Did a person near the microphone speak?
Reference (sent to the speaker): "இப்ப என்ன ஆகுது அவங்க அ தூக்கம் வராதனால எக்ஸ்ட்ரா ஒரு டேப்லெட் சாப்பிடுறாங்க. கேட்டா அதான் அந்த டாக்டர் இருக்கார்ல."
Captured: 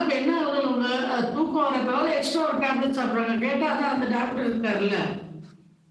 No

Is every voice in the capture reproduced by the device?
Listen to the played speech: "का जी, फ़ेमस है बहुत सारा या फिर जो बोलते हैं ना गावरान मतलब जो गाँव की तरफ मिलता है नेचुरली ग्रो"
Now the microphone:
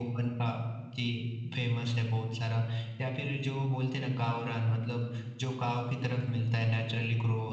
Yes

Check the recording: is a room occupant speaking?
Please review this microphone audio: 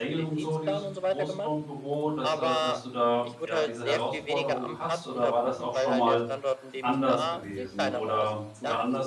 Yes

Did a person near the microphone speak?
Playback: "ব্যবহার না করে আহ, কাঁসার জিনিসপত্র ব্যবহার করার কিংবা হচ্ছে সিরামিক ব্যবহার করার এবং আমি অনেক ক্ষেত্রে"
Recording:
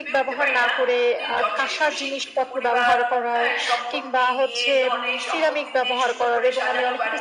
Yes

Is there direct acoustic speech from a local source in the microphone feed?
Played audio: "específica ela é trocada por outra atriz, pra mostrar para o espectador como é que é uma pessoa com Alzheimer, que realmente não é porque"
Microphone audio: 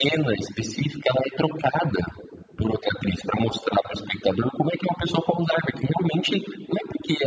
No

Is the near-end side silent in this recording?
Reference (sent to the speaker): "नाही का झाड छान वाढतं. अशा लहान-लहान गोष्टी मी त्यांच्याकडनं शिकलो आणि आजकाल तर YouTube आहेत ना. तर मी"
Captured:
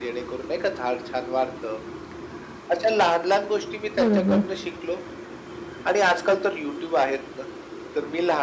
No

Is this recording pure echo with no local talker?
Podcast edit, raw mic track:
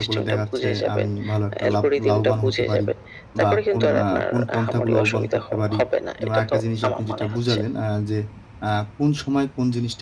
No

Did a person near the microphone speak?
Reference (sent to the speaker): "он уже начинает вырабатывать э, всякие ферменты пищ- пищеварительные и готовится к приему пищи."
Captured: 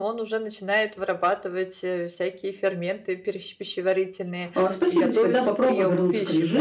Yes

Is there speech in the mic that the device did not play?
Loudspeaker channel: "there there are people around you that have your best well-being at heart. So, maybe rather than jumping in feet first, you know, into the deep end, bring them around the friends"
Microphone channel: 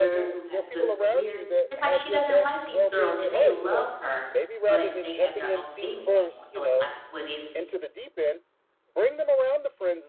Yes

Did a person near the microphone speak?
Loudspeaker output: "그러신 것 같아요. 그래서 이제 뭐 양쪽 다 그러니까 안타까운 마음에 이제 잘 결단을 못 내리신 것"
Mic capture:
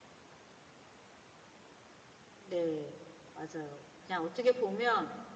Yes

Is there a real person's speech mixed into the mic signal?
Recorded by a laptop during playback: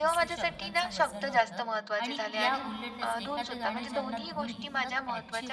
Yes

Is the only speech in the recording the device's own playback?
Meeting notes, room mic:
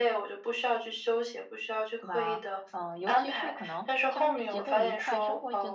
No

